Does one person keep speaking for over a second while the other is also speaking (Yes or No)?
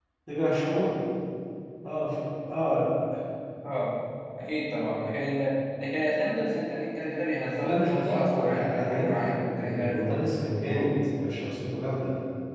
Yes